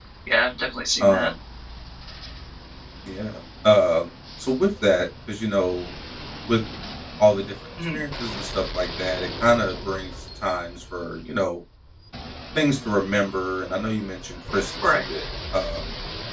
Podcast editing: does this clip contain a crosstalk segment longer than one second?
No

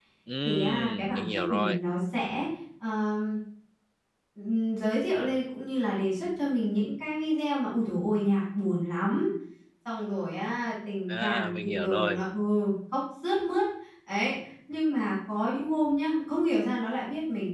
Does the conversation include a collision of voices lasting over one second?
Yes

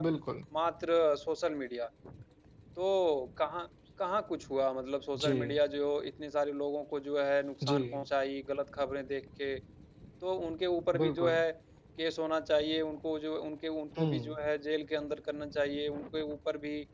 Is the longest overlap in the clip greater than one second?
No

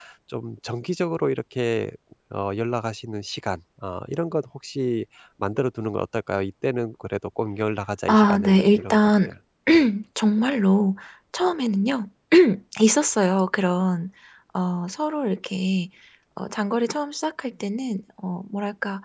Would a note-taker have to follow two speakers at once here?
Yes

